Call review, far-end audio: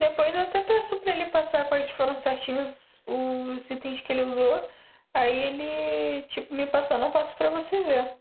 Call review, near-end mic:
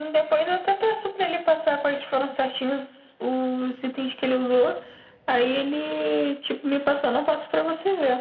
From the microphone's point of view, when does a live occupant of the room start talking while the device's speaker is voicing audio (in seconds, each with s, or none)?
none